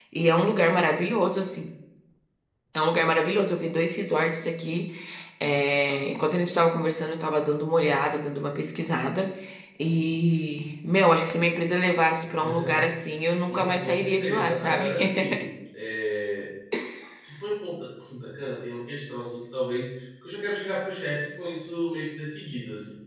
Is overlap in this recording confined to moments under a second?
No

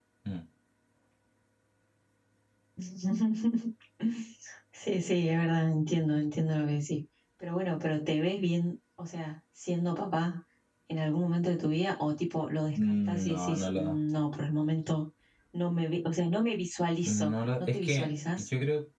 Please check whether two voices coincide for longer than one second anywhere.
Yes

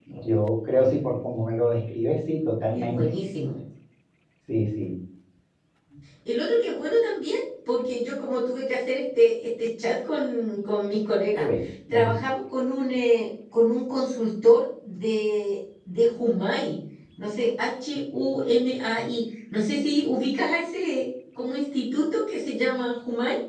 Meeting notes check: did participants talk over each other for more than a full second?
No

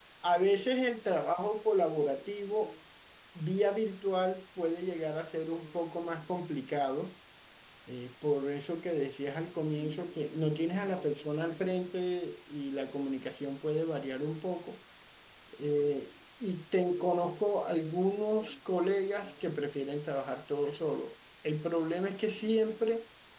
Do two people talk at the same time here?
No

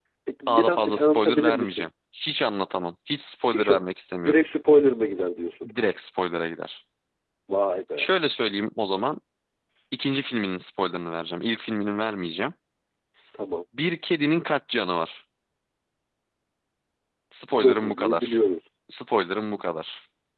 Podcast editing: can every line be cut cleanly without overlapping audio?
No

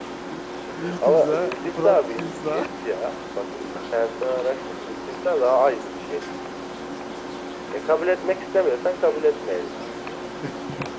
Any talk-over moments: Yes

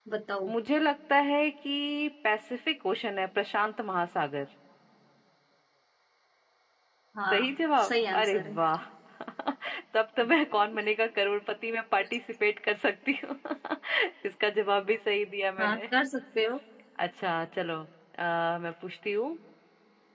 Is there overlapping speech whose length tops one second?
Yes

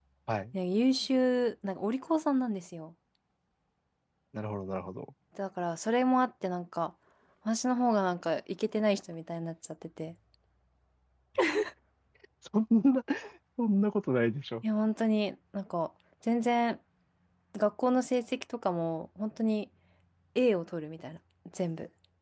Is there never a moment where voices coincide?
Yes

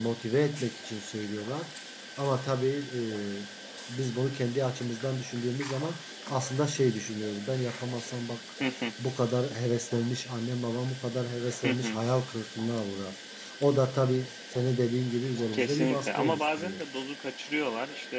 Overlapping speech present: Yes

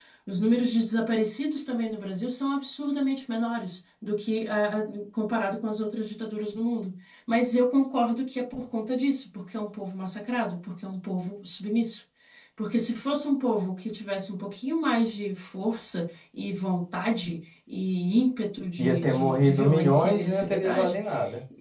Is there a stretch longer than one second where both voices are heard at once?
Yes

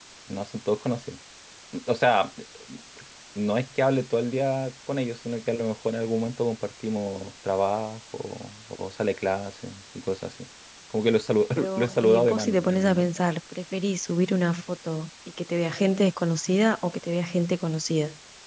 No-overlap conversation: No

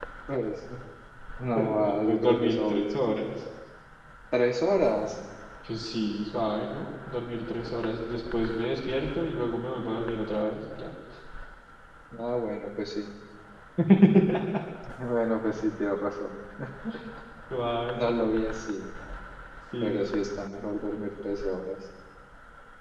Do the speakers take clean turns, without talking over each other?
No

